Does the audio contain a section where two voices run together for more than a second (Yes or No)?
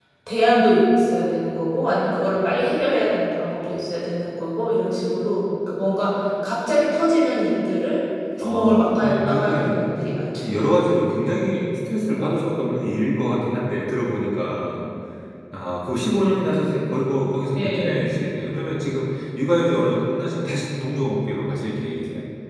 Yes